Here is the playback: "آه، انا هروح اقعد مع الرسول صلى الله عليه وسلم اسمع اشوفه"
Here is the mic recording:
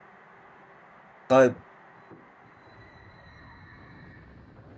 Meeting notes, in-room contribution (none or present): present